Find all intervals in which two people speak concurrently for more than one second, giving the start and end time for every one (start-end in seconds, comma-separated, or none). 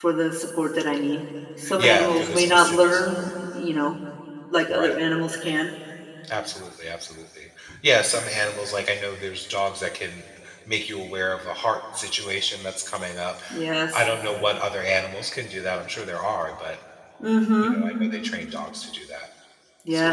1.8-3.3